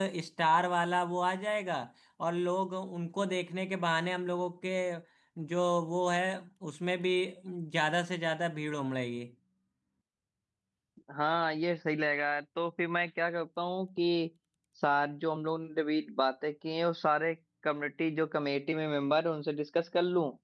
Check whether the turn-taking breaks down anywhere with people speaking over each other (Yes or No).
No